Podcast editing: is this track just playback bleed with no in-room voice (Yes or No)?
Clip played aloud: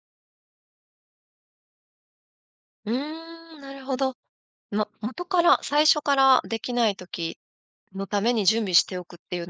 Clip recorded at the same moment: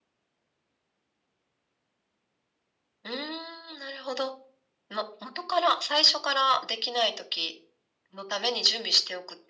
Yes